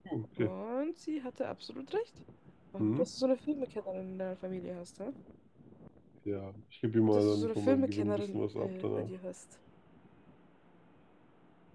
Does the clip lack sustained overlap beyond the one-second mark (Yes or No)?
No